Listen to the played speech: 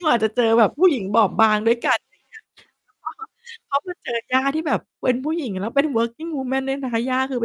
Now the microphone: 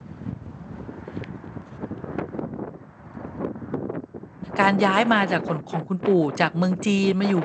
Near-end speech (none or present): present